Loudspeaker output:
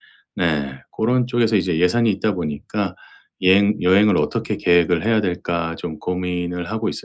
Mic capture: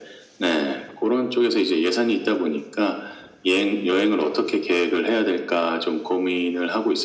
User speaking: No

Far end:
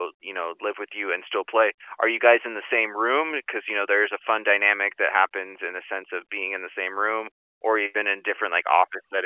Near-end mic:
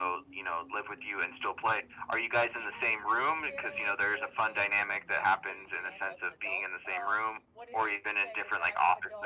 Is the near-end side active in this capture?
Yes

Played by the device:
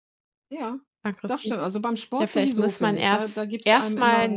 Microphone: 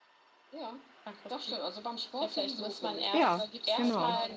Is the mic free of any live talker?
No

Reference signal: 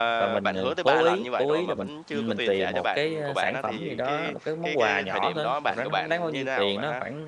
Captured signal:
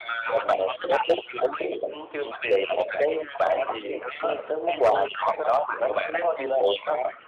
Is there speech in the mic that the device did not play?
No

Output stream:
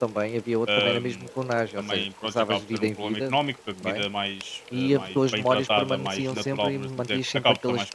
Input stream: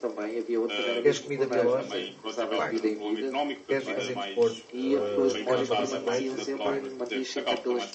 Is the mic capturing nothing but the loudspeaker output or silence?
No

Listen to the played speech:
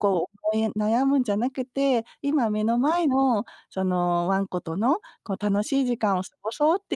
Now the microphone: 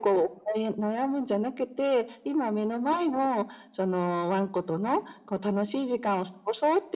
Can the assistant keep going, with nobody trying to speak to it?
Yes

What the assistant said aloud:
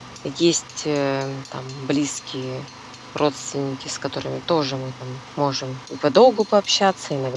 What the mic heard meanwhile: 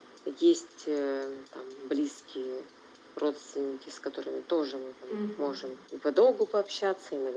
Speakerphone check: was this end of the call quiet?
No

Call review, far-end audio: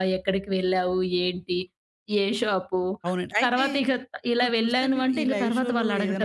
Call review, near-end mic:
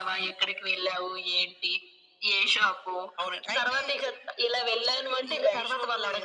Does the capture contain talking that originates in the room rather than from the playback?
No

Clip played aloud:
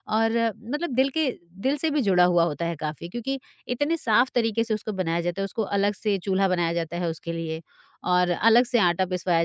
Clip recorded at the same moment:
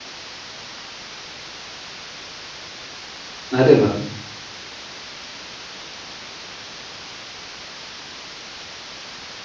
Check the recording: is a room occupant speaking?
Yes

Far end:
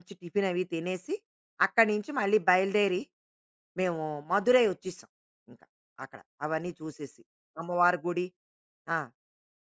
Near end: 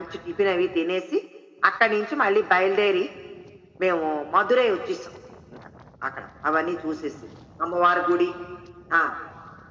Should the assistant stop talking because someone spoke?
No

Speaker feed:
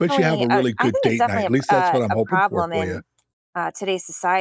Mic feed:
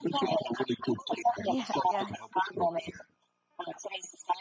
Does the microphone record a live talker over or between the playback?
Yes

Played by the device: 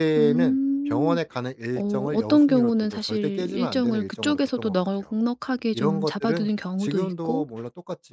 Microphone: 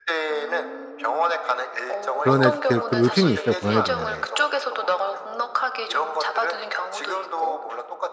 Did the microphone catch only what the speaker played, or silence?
No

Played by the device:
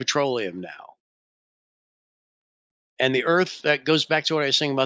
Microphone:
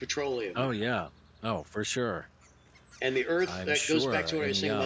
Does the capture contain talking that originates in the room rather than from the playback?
Yes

